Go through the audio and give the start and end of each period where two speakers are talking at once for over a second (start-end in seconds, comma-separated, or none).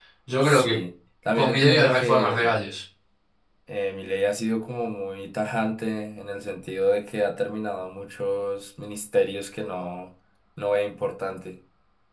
1.3-2.5